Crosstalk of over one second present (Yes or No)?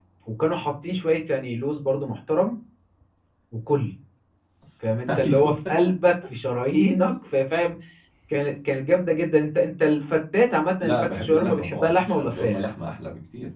Yes